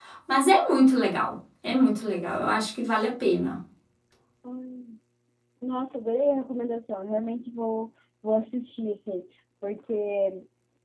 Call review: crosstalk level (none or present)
none